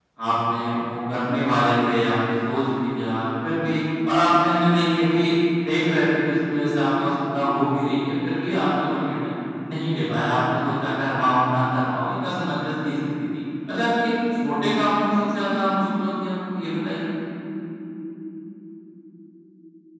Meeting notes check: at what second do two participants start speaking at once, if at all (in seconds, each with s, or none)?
none